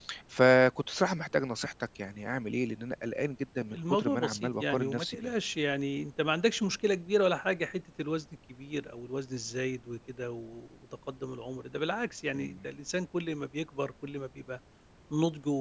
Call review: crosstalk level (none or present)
present